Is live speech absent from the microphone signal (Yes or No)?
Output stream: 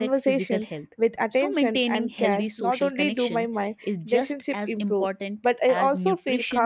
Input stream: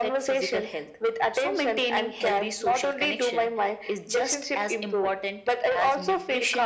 Yes